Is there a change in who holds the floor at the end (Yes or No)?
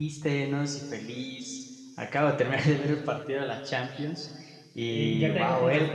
Yes